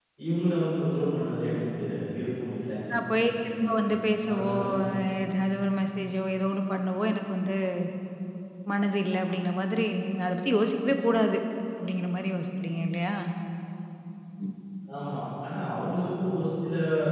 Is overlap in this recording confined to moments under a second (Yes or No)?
Yes